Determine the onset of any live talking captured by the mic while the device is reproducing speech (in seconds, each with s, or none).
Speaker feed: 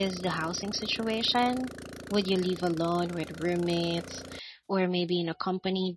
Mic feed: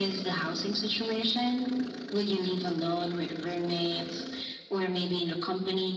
none